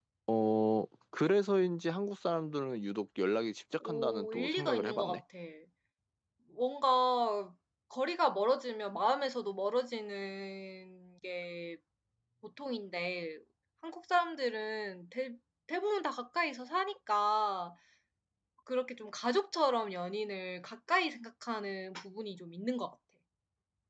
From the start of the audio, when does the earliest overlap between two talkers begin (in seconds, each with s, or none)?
3.8 s